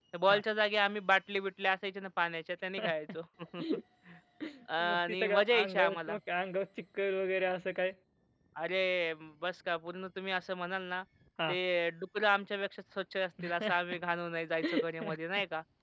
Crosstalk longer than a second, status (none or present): present